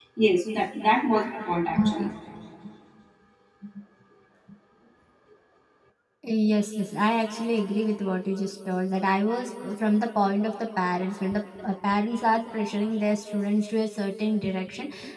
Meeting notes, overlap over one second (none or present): none